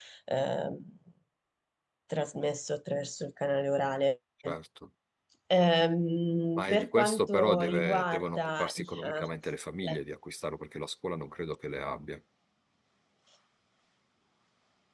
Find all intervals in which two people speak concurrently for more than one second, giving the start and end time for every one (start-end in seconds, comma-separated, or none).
6.6-9.3